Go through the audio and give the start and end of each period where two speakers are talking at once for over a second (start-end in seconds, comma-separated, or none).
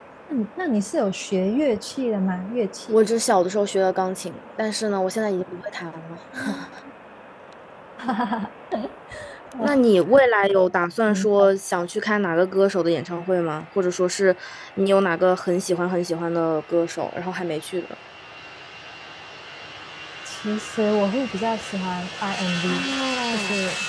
none